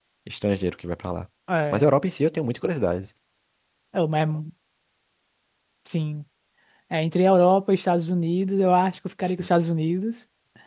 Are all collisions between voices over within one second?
Yes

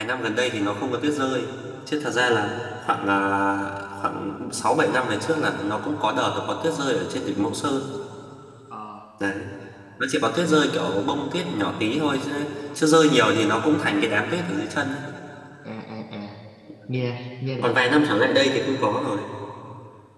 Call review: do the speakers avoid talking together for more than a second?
Yes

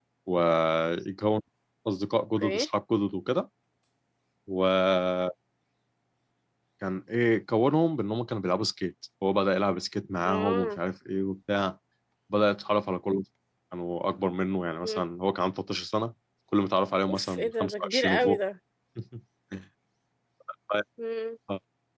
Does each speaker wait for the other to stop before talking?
No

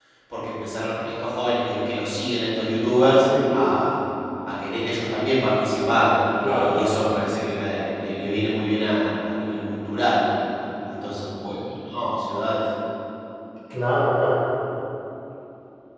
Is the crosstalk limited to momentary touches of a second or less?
Yes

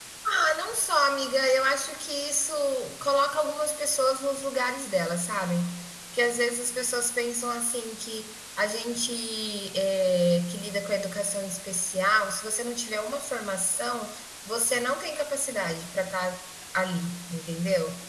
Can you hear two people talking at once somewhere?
No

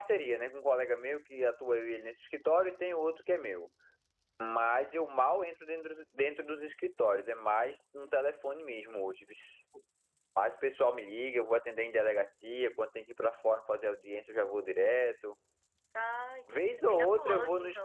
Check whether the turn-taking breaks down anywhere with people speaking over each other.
Yes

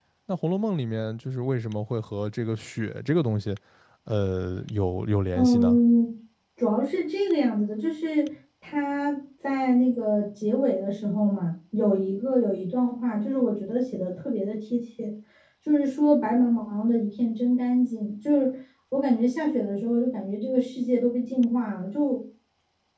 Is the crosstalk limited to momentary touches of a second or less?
Yes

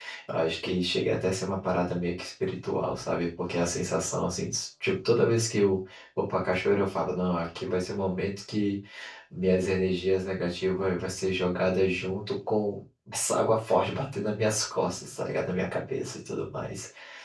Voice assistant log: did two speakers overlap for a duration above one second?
No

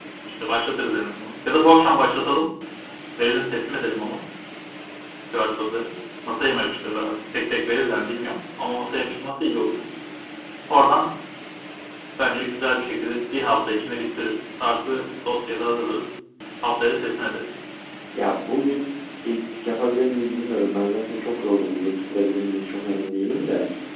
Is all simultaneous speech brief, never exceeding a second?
Yes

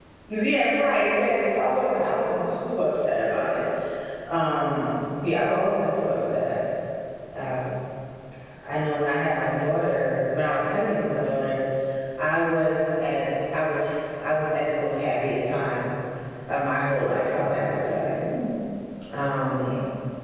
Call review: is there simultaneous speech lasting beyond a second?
No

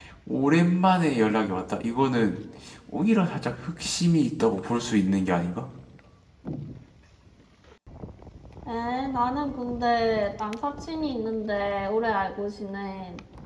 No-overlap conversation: Yes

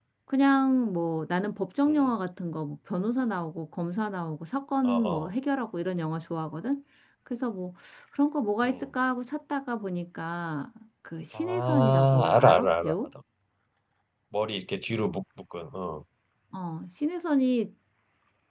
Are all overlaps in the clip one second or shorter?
No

